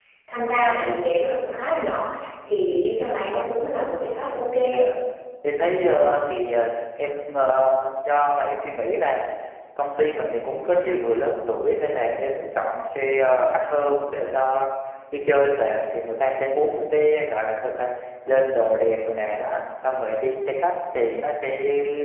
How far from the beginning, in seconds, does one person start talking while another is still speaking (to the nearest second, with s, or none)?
none